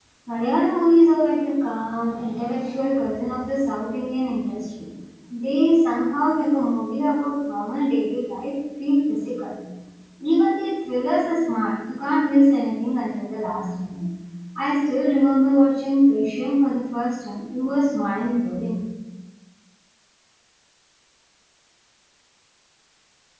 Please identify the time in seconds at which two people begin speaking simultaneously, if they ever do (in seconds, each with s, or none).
none